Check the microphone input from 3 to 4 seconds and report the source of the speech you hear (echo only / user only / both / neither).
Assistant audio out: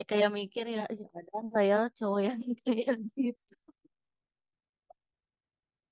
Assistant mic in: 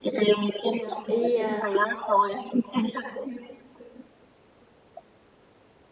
echo only